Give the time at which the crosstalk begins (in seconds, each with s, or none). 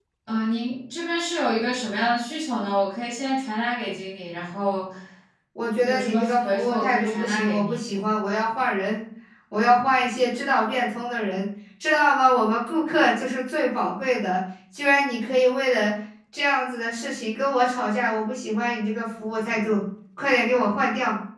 5.8 s